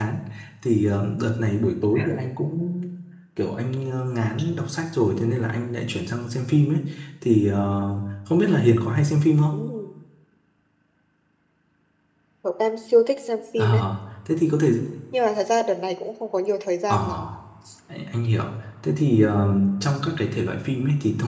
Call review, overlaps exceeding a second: none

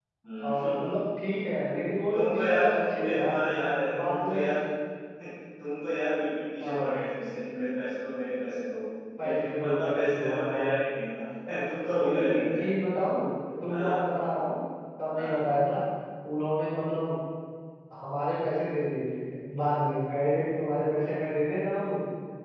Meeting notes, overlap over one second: present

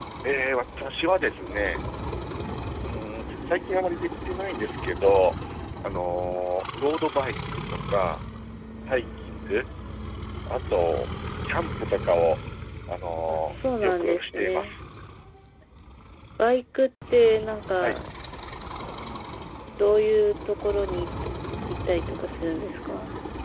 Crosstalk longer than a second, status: present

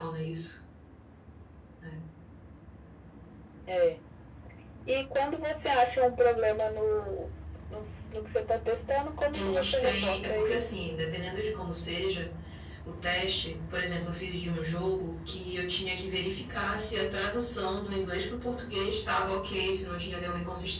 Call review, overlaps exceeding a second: present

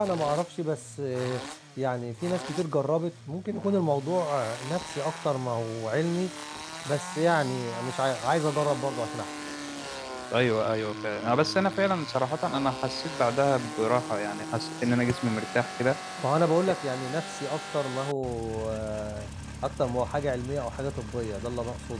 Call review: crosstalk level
none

